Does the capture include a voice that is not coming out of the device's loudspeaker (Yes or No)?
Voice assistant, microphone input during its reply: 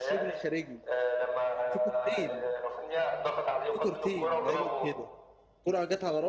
Yes